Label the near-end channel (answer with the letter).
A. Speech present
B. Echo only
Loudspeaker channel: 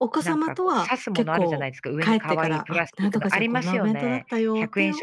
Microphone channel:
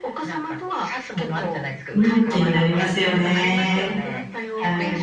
A